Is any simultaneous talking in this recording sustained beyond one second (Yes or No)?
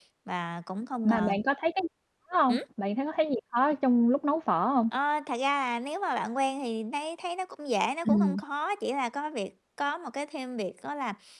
No